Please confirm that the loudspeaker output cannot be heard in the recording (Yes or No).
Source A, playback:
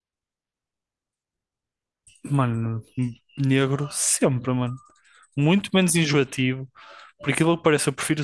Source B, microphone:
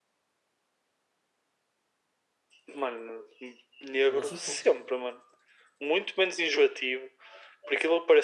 No